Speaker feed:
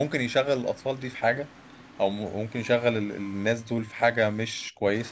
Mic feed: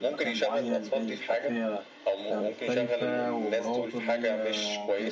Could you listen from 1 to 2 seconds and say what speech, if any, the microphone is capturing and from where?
both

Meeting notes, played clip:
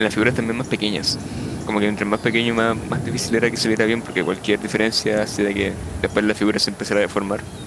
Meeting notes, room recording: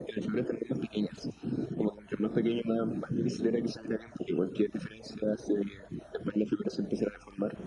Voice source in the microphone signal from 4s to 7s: echo only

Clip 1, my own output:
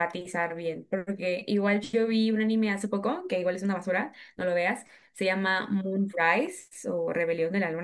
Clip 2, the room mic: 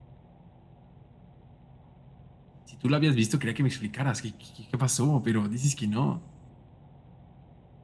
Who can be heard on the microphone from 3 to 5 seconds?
user only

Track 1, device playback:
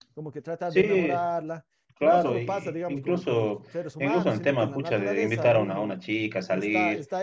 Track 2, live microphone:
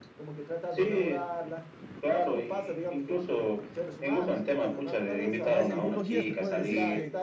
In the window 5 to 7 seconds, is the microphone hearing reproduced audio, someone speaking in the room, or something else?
both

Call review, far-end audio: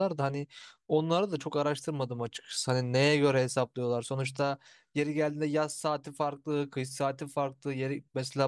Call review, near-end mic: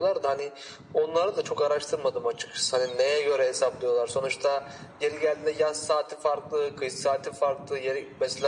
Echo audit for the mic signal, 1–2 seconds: echo only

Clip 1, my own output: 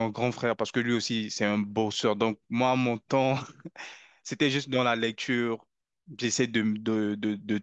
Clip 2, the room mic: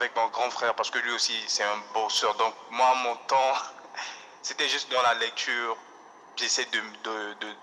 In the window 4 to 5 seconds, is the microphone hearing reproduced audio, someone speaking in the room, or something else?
echo only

